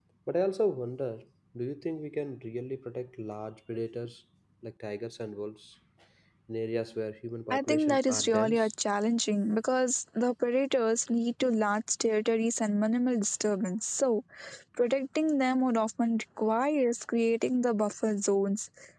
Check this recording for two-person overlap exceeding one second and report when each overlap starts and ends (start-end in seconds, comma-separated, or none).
7.5-8.7